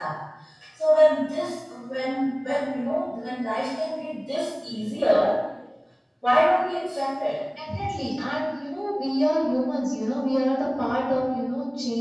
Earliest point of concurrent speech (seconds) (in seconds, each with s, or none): none